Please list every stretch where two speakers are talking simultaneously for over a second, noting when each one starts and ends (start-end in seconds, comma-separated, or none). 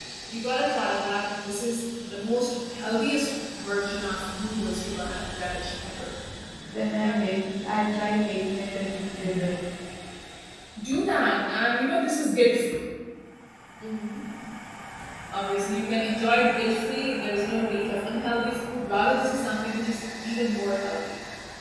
none